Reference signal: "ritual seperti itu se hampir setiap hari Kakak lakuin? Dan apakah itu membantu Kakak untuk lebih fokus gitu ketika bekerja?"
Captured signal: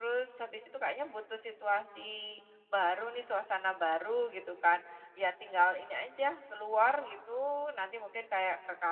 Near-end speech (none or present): present